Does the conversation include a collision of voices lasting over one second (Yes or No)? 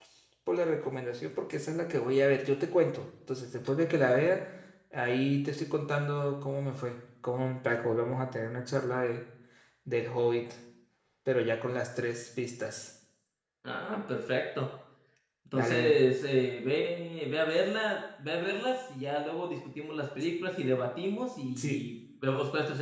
No